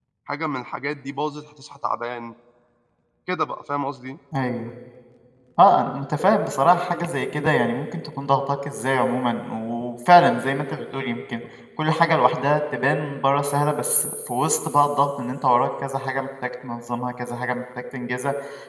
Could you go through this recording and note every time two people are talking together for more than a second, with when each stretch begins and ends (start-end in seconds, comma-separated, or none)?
none